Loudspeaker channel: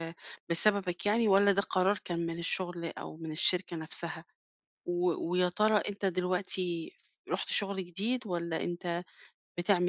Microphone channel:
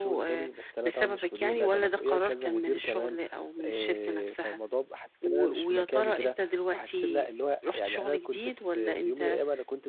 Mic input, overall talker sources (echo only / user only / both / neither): both